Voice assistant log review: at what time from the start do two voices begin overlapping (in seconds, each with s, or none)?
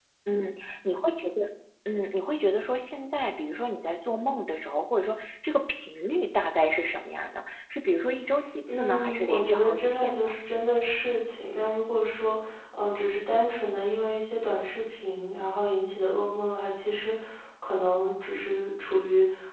8.7 s